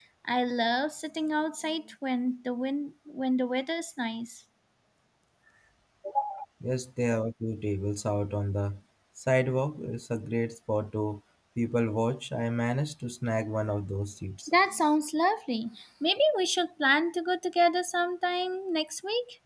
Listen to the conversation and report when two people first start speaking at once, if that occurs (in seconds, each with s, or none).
none